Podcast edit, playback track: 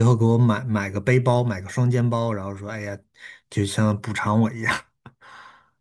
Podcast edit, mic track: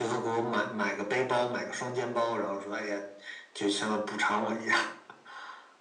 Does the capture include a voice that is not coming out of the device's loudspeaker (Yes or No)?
No